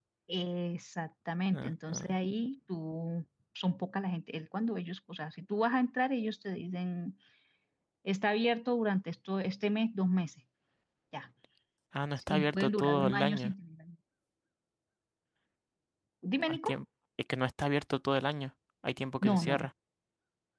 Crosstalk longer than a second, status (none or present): present